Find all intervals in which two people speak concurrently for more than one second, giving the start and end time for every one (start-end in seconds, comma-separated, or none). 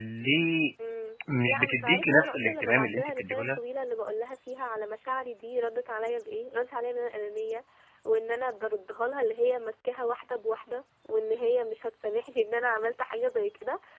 1.5-3.6